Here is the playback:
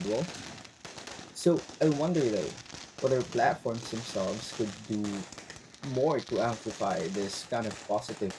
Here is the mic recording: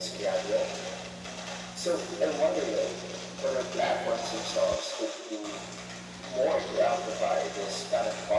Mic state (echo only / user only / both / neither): echo only